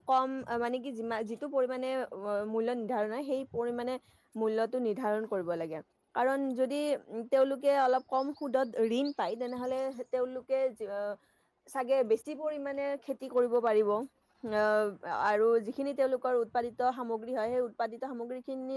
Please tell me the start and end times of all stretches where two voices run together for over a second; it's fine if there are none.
none

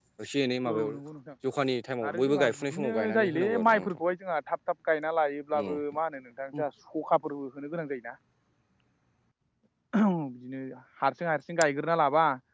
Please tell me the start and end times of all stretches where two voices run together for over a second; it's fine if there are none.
2.1-3.8

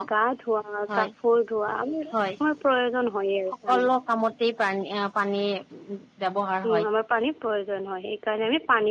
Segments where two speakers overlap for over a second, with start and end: none

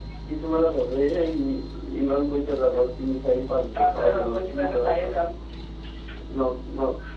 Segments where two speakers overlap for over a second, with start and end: 3.8-5.2

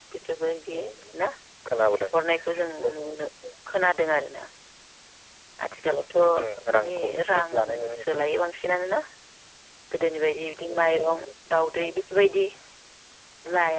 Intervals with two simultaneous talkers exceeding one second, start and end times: 6.4-8.2

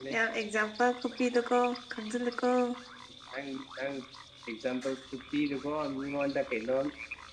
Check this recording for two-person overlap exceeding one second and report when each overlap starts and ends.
none

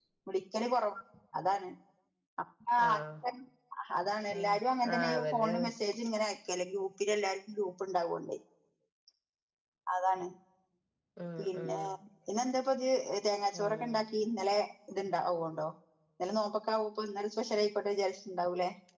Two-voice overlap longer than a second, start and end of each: 4.4-5.7

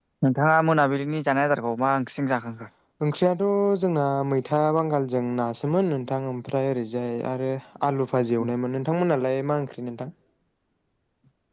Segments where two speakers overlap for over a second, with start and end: none

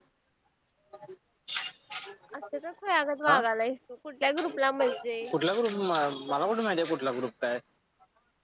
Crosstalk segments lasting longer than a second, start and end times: none

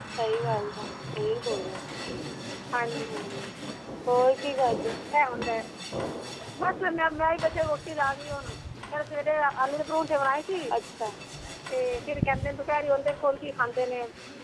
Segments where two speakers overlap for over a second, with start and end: none

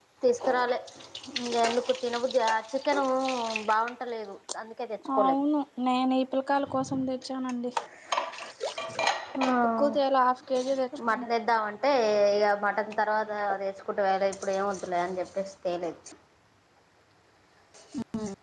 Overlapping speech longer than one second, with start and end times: none

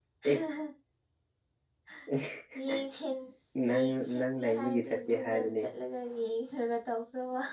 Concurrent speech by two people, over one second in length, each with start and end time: 3.7-5.6

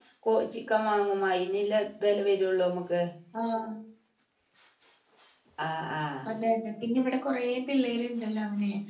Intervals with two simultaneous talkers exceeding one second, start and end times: none

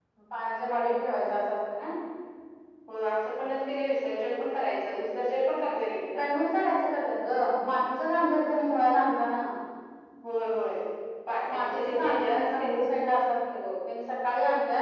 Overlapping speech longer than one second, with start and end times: 11.5-12.8

